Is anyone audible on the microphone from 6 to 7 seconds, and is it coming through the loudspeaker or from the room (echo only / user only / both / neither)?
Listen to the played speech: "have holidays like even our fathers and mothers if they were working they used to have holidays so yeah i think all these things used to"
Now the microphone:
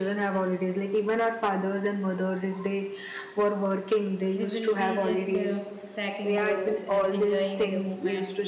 both